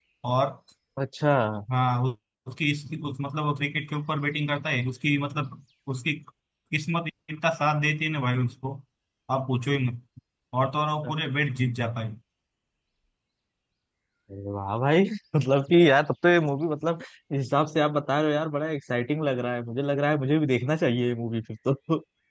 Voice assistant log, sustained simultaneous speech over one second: none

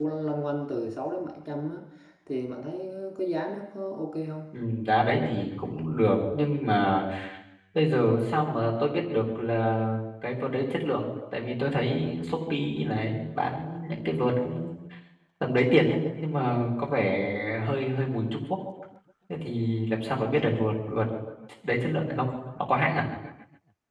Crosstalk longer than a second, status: none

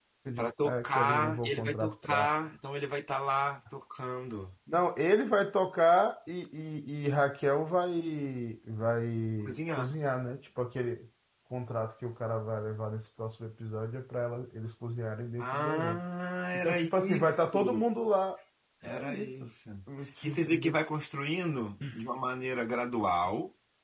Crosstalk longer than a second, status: present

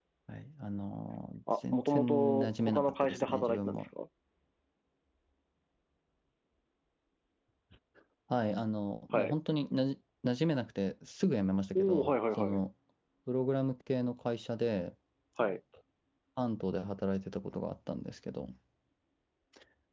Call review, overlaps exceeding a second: present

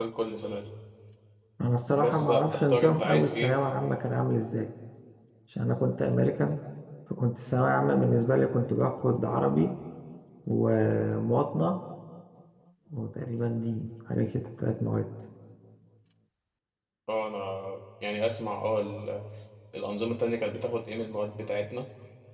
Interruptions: present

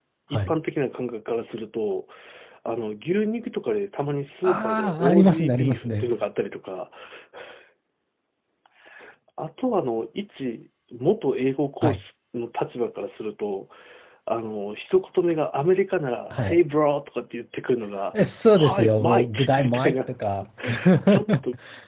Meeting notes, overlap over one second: present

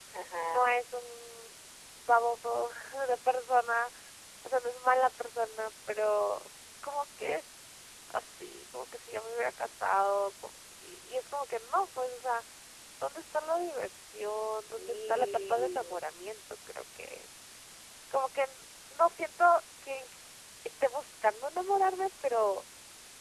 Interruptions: present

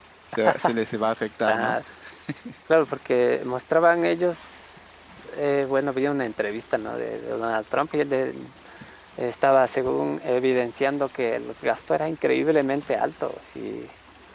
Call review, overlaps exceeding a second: none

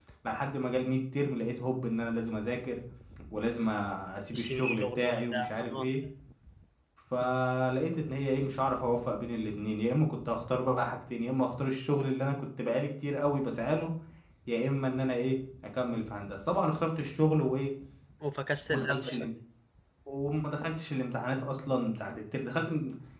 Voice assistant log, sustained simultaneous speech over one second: present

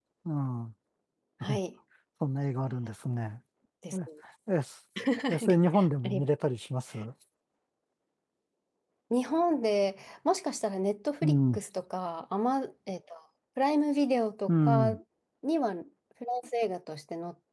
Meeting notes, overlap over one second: none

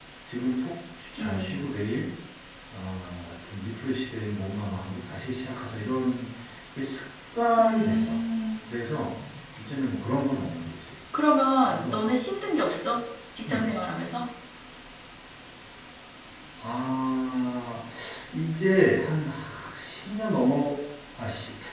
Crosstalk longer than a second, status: none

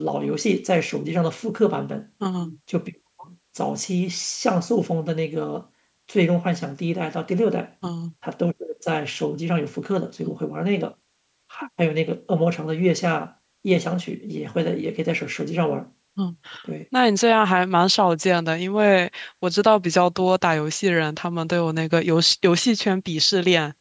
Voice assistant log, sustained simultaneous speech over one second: none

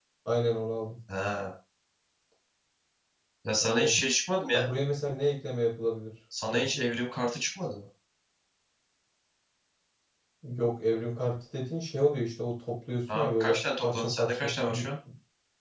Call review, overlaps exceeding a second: present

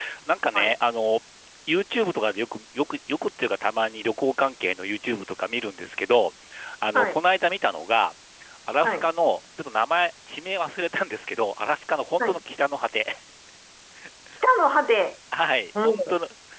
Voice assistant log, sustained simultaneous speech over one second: none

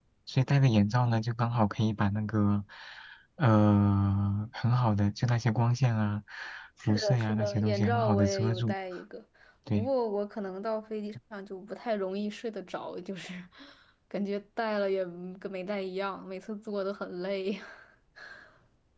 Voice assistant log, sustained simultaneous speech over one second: present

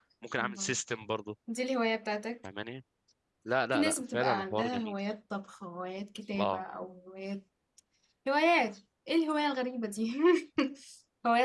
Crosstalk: present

